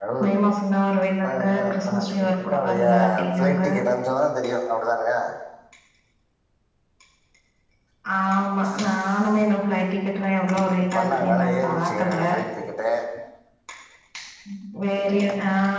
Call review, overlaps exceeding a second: present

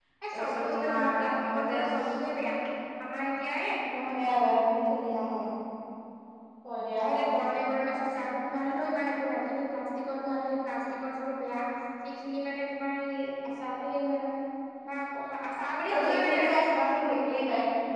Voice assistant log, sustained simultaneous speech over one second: present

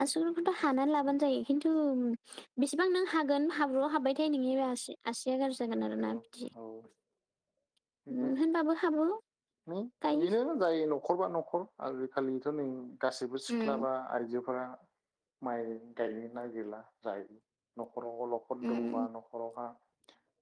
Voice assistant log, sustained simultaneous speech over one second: none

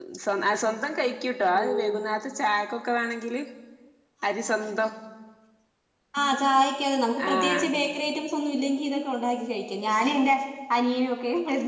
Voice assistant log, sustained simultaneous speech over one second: none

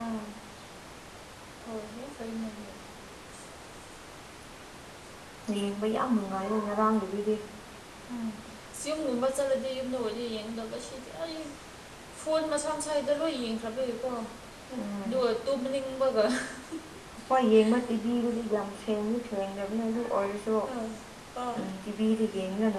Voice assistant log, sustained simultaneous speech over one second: none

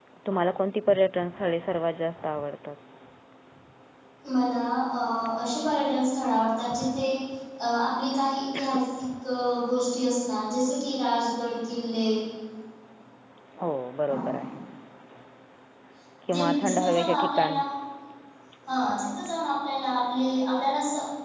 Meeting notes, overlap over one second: present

